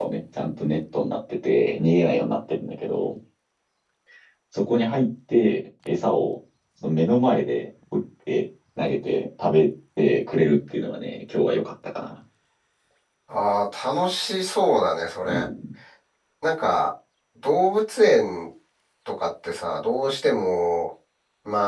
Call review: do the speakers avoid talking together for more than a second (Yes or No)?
Yes